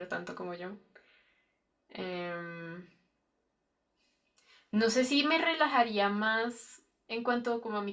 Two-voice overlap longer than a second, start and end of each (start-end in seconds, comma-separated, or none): none